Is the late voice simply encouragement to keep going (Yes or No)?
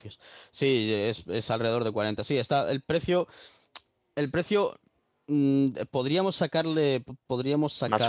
Yes